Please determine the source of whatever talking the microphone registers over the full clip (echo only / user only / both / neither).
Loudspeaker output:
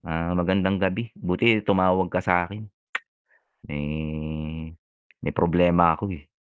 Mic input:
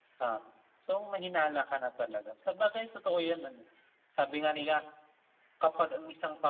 user only